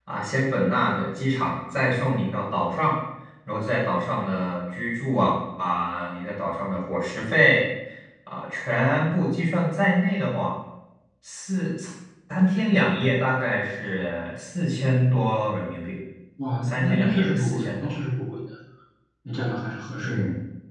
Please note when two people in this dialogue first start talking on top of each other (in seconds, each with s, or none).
16.6 s